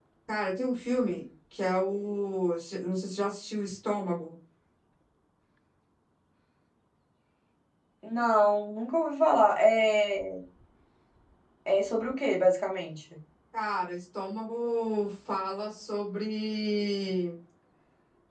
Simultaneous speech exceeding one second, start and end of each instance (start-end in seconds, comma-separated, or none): none